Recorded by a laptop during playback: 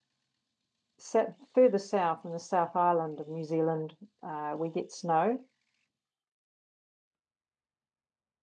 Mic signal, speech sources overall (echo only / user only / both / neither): user only